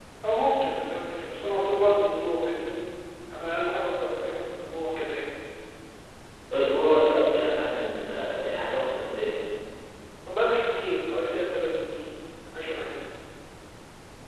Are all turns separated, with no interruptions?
Yes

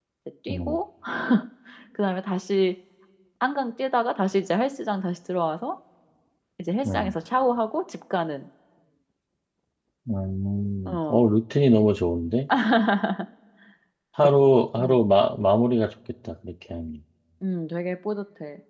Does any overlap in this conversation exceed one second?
No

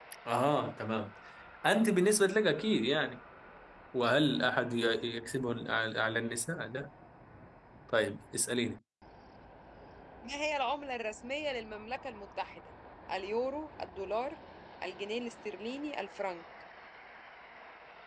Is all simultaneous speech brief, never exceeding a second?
Yes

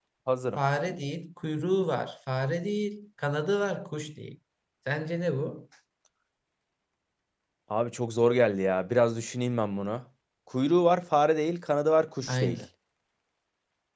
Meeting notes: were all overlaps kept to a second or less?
Yes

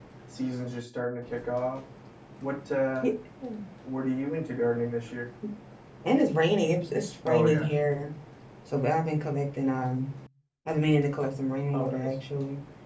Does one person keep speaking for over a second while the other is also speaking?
No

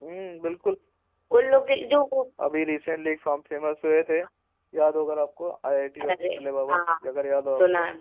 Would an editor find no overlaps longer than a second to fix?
Yes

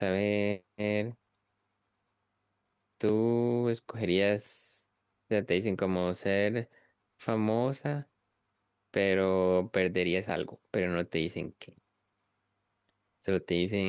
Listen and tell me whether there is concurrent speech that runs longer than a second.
No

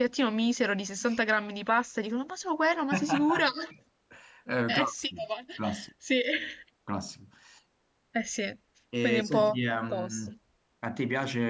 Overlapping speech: Yes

